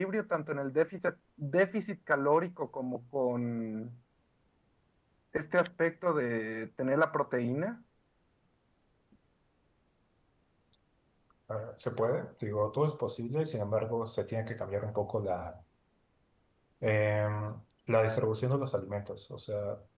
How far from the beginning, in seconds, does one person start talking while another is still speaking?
none

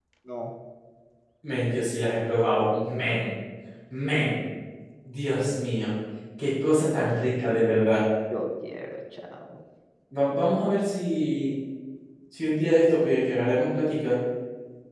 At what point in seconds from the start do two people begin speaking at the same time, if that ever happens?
none

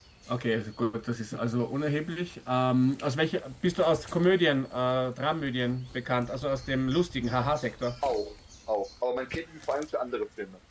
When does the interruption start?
none

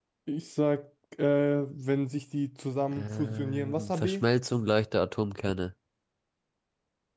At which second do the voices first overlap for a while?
2.9 s

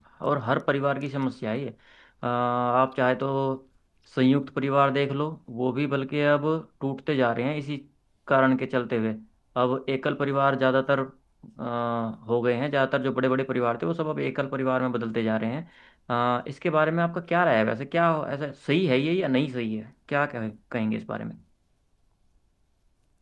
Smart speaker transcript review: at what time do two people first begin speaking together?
none

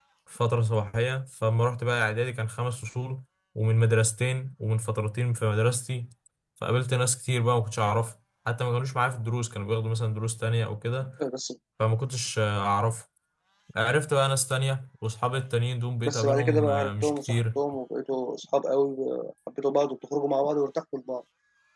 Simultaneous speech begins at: 16.1 s

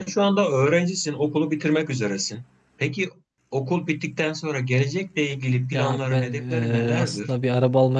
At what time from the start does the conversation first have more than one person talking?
5.7 s

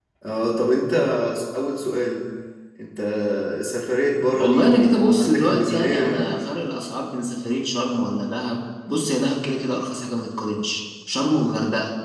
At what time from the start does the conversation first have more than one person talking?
4.4 s

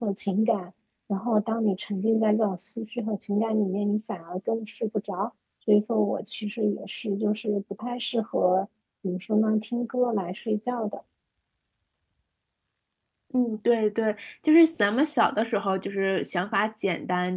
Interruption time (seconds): none

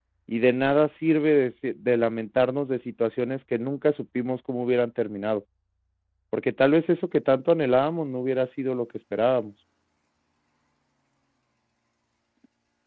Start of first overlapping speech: none

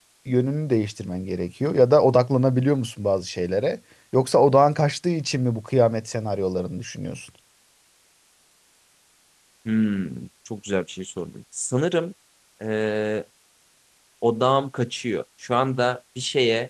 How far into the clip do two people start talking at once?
none

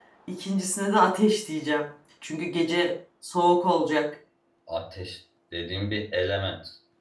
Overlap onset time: none

